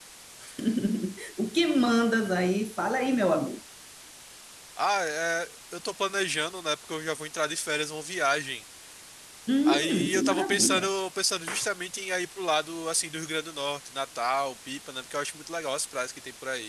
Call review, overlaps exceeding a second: present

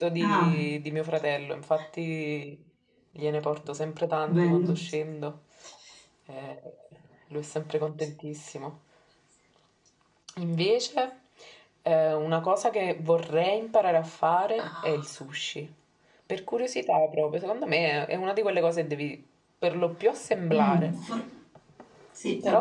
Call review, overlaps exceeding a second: none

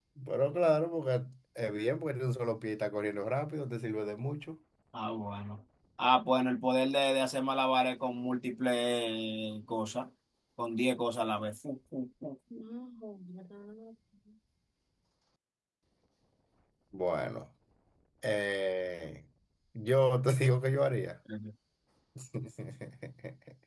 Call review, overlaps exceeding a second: none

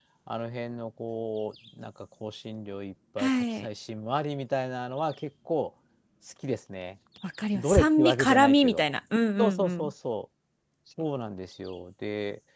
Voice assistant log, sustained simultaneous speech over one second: present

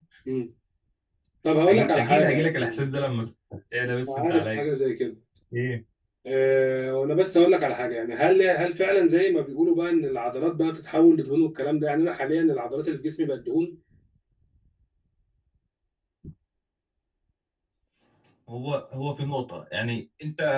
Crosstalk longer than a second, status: present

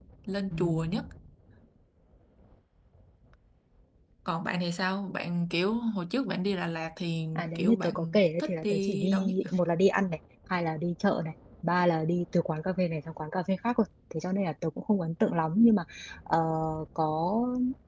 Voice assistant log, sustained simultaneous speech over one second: present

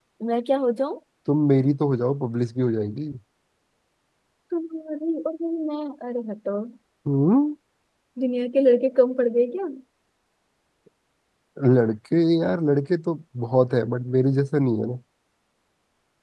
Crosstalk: none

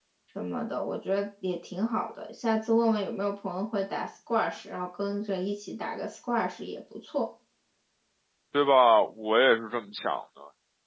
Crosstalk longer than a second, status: none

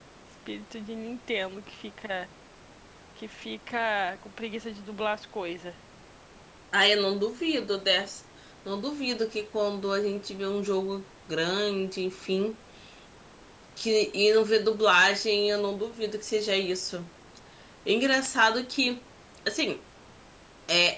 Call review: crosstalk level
none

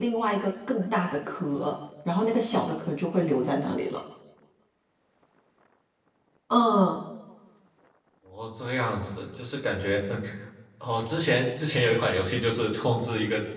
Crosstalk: none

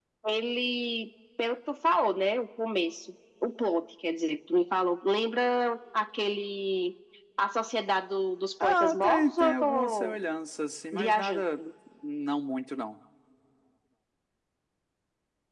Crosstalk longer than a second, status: present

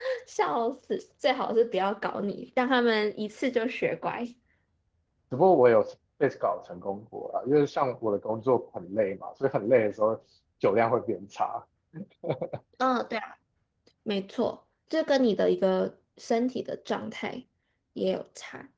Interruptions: none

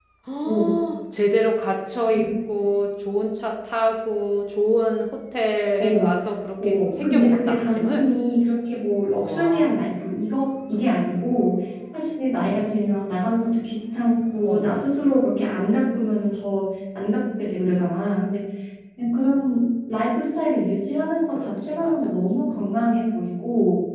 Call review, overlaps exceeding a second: present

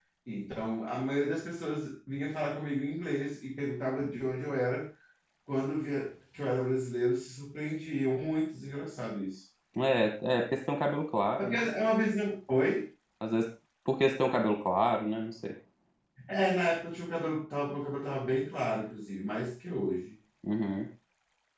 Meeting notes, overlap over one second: none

